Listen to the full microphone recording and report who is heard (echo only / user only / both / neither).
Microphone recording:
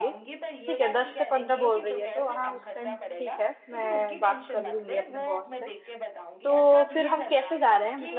both